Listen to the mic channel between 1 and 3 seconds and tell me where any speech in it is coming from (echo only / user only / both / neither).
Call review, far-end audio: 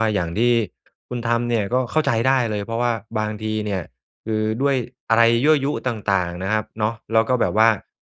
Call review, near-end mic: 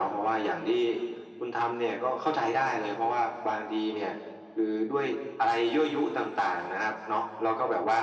echo only